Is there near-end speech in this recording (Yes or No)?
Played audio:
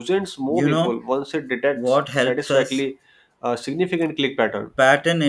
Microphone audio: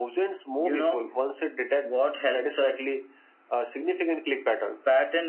No